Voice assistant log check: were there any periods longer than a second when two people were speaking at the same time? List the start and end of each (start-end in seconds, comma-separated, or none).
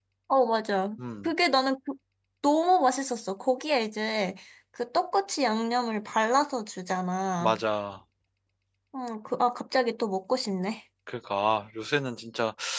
none